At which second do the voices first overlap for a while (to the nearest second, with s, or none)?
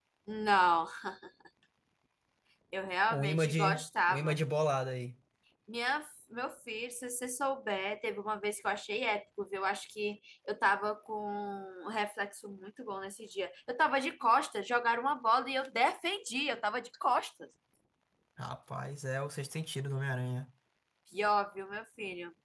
3 s